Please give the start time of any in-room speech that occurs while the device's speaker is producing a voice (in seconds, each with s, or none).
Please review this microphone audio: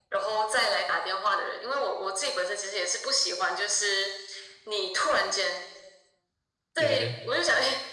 6.8 s